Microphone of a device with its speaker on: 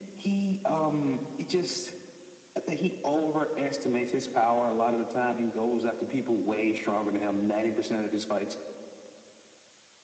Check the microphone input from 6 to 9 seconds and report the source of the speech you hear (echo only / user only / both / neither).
echo only